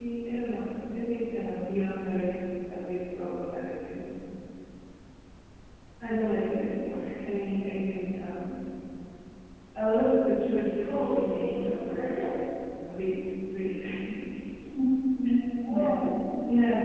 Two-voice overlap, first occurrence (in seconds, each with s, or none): 10.8 s